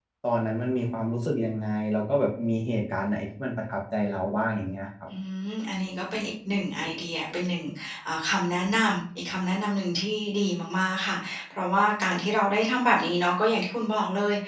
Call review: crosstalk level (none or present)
none